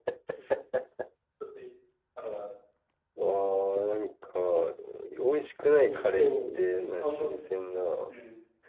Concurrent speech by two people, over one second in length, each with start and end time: 5.9-7.4

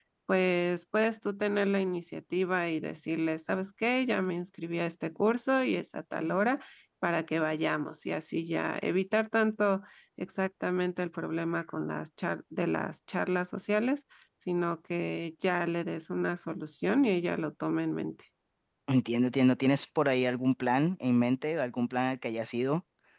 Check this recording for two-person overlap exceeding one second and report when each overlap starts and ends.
none

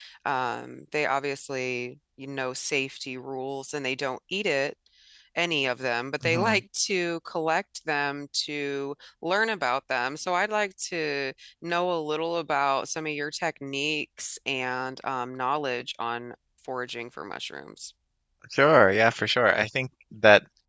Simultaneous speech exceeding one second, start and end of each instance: none

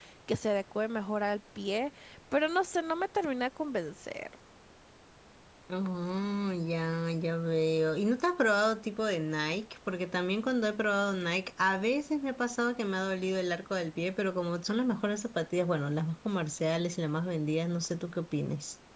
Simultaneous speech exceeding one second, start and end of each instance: none

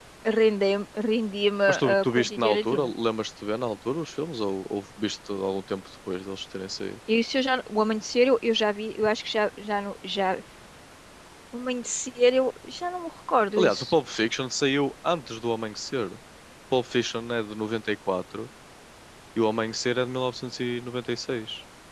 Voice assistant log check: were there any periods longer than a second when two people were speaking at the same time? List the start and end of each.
1.7-2.9

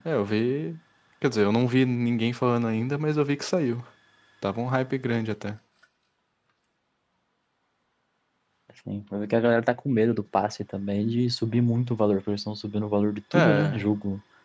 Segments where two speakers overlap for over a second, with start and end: none

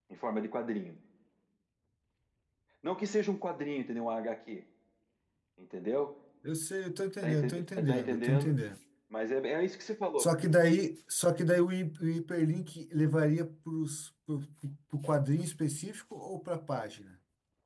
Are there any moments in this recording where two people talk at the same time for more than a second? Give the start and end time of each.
7.2-8.6

